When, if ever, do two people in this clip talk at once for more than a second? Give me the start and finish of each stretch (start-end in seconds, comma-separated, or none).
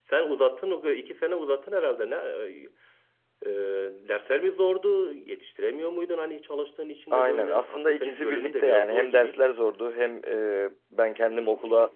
7.1-9.4